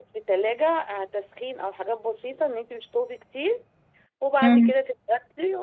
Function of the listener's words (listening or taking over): listening